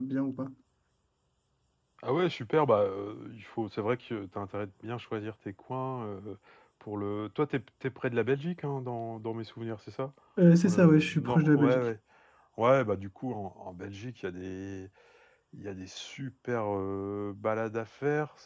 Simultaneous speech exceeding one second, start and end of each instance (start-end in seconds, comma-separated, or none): 10.6-11.8